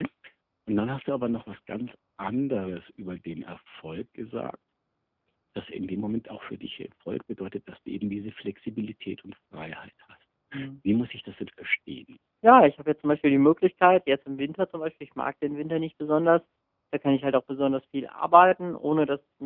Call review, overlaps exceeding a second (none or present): none